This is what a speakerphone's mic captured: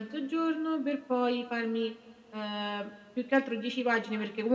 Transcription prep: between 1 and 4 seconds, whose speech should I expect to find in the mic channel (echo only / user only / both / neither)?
echo only